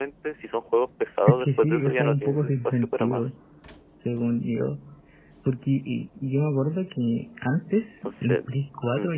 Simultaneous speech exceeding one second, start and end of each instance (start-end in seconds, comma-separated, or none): 1.3-3.3